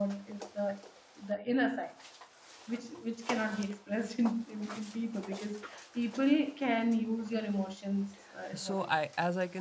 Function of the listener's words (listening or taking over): taking over